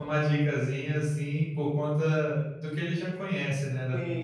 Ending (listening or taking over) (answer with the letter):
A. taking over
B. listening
A